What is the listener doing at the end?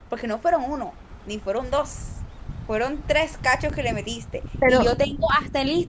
listening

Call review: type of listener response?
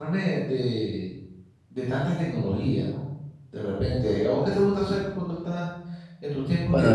taking over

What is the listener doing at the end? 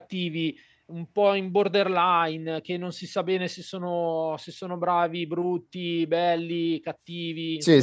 taking over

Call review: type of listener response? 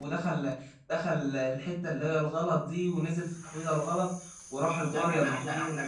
taking over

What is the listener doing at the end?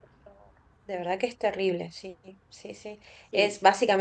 listening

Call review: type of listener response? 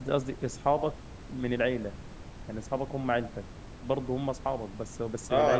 taking over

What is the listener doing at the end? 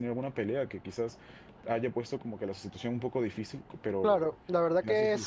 taking over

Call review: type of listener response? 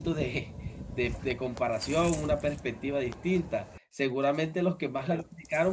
listening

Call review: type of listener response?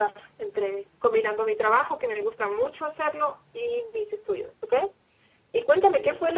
listening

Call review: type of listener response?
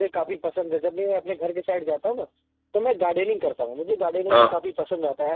listening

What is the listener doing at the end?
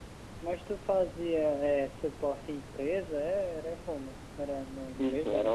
taking over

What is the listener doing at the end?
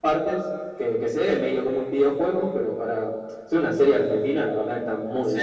taking over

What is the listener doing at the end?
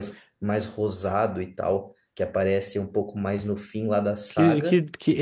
taking over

